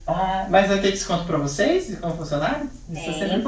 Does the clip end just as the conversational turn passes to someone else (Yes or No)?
Yes